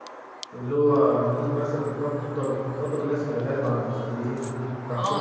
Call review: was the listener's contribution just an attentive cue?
No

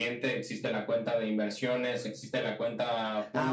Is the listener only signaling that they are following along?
No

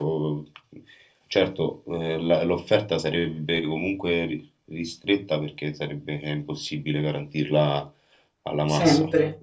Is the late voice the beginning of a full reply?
No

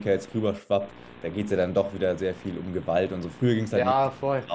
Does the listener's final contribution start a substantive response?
Yes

